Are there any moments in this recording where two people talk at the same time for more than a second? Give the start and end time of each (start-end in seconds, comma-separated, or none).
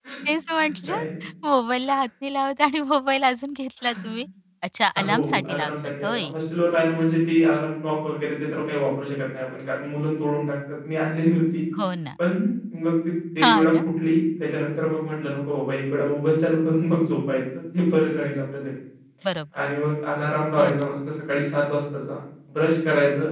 5.0-6.3